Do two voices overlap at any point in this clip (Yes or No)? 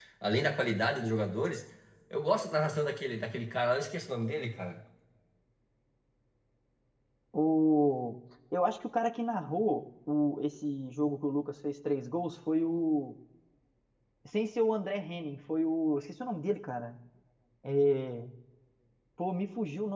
No